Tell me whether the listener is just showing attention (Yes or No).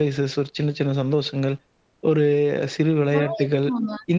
Yes